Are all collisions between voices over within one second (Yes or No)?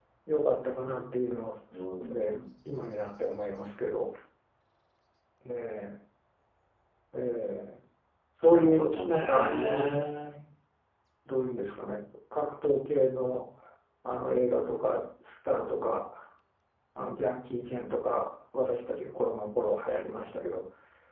No